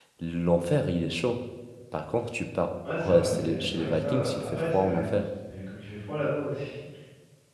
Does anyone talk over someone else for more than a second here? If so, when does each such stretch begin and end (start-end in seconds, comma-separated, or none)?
2.9-5.1